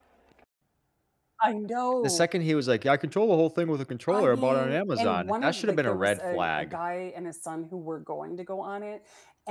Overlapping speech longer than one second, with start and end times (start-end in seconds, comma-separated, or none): 4.1-6.8